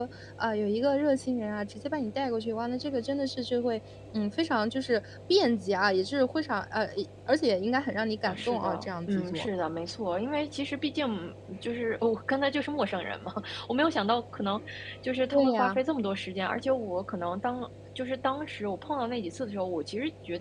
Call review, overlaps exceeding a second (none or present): present